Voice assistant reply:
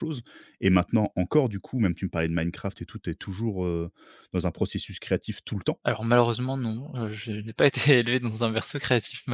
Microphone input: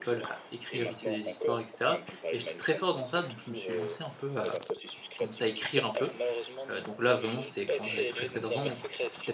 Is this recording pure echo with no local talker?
No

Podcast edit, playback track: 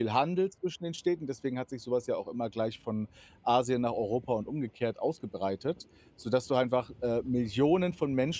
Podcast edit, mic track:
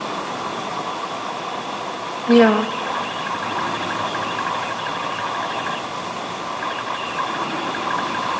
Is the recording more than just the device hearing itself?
Yes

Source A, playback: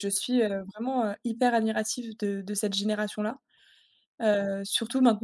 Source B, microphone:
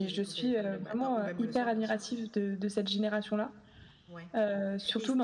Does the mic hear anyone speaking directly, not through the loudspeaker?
Yes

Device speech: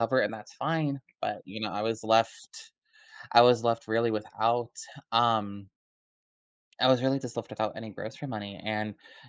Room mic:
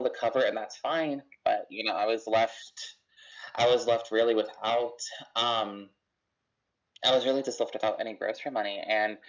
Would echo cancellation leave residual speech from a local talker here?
No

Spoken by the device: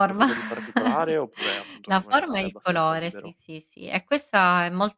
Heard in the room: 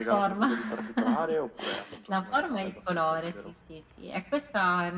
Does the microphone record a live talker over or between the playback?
No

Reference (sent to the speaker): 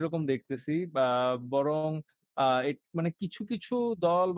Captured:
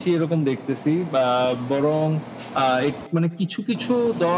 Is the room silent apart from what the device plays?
Yes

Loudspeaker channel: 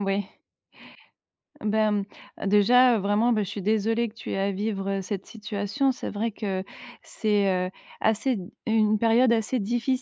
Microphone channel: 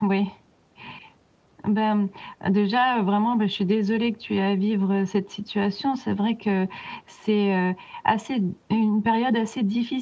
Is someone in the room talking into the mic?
No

